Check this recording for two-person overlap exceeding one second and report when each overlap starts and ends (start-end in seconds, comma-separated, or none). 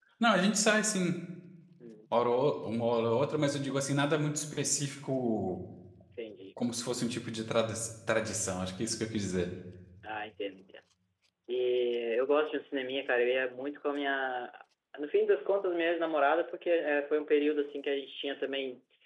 none